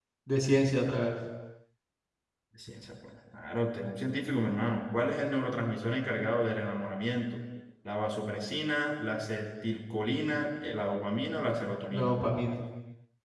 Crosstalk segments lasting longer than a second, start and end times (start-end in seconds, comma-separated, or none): none